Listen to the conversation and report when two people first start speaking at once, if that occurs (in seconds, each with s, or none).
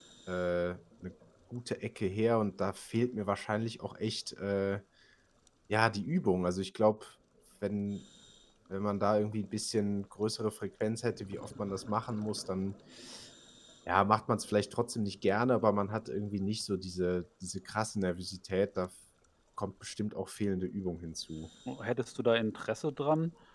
none